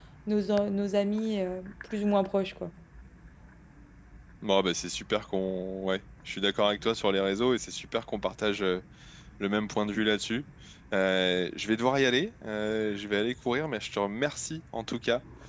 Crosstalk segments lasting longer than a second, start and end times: none

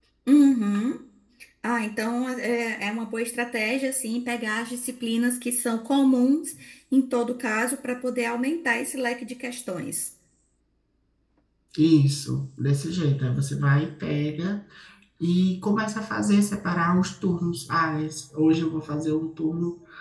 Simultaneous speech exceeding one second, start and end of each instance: none

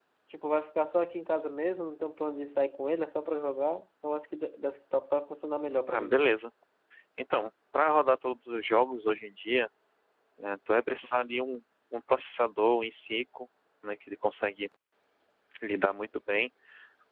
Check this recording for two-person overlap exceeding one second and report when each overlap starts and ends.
none

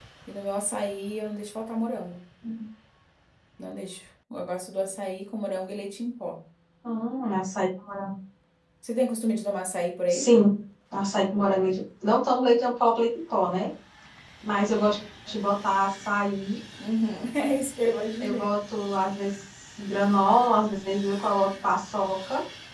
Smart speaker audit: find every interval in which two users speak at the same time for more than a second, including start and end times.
none

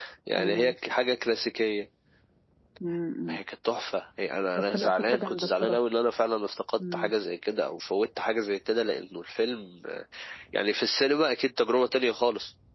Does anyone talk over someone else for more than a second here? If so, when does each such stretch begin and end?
4.6-5.8

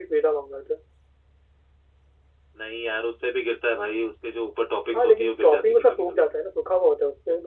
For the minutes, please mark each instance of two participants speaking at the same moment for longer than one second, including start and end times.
4.9-6.2

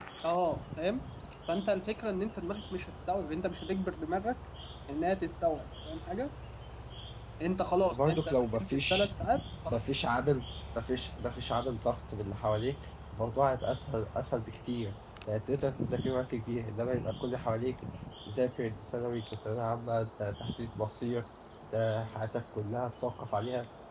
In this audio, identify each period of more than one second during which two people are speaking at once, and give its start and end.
7.9-9.1

